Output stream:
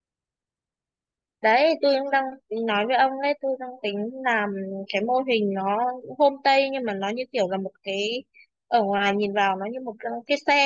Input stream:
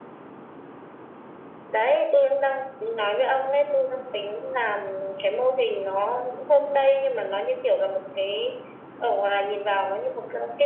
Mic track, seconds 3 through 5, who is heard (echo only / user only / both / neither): echo only